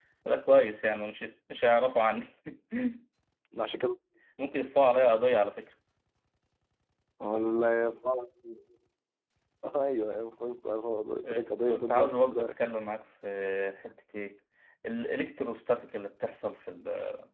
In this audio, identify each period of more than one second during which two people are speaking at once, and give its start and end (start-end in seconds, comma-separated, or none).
11.2-12.6